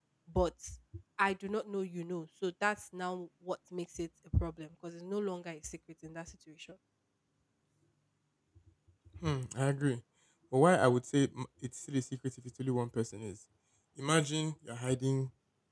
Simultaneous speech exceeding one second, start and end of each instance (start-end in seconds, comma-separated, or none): none